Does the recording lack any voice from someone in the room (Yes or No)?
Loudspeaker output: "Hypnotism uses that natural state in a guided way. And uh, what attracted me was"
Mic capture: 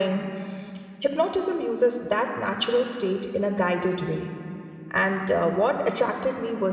Yes